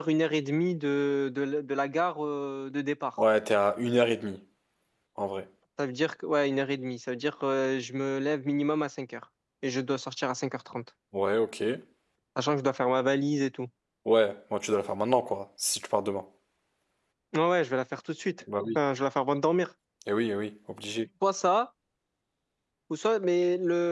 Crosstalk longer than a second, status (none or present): none